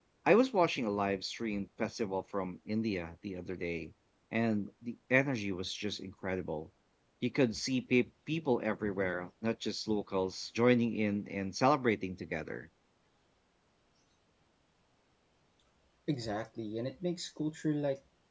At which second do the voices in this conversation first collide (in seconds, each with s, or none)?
none